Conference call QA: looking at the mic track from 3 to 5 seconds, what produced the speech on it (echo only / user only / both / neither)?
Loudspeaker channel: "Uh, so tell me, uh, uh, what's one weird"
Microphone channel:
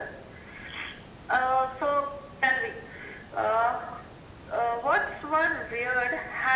echo only